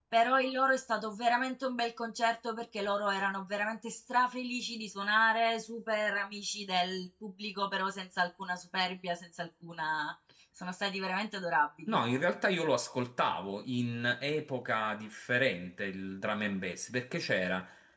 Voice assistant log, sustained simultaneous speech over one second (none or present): none